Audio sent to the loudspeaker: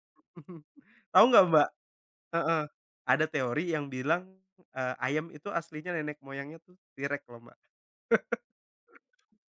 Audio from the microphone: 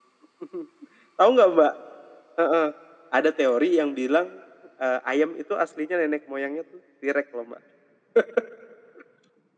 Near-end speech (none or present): none